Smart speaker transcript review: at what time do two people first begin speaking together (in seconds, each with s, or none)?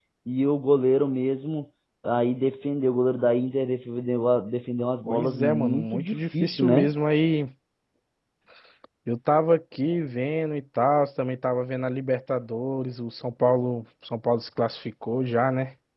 5.1 s